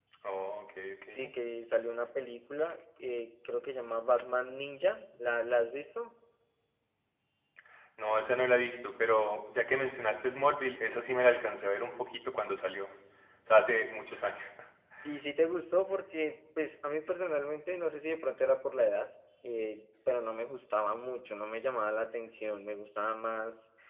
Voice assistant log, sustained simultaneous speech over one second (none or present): none